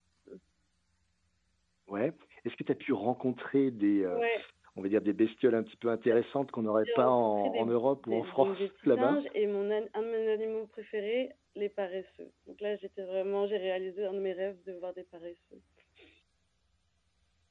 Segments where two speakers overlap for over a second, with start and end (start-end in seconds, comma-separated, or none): 6.8-9.2